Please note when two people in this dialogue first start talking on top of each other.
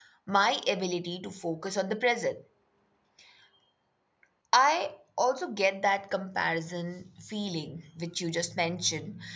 none

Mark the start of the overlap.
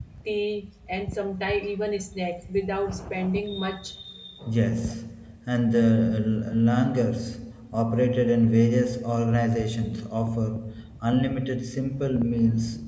none

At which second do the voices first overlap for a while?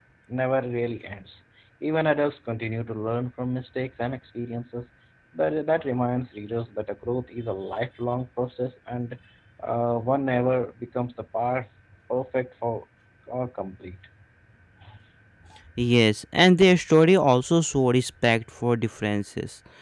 none

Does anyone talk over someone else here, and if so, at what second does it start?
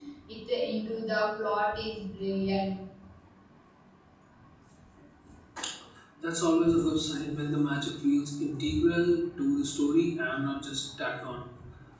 none

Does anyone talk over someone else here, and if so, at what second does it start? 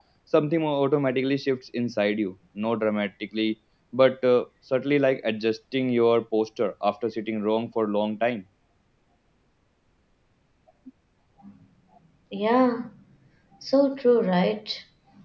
none

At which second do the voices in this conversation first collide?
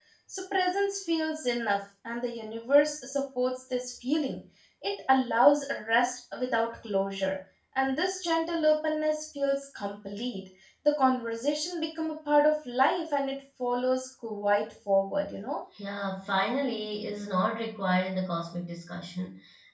none

